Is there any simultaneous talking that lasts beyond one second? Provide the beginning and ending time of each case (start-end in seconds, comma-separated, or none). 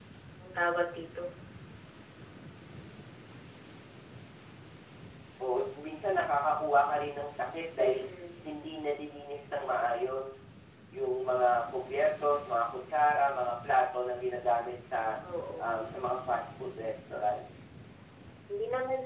none